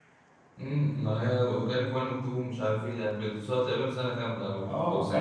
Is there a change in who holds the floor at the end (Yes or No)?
Yes